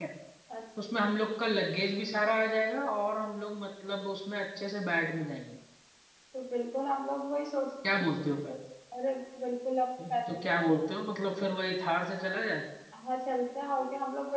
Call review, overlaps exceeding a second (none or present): none